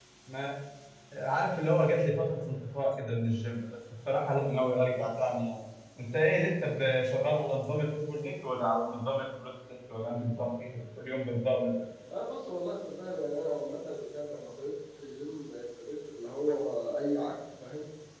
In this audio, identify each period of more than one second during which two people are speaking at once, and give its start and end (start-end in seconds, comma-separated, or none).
none